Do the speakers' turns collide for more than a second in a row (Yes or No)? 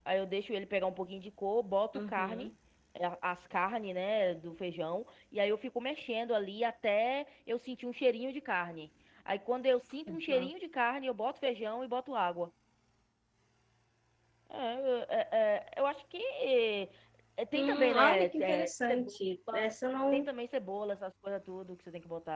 Yes